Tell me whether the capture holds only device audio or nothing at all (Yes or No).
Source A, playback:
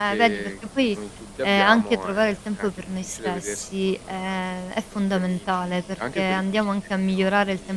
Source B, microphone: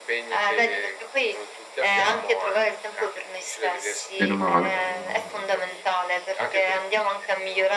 No